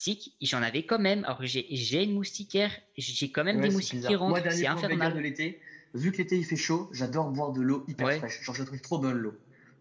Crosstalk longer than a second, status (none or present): present